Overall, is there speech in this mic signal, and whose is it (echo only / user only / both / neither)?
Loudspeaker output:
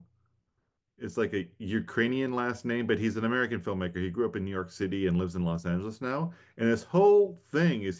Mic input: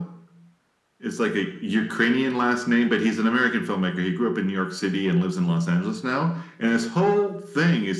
echo only